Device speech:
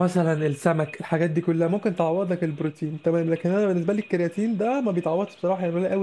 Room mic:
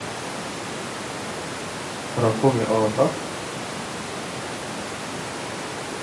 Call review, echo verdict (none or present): none